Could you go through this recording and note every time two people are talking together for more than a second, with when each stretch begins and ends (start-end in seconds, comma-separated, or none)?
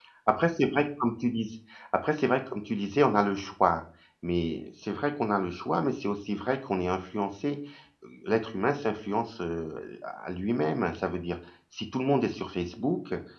none